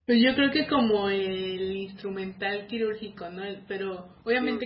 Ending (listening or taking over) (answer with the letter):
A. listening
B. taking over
A